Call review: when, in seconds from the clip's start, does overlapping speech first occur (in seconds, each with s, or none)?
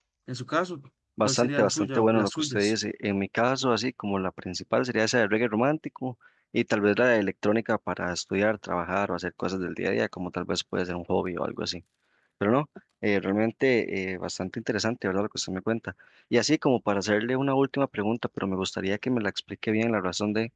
1.2 s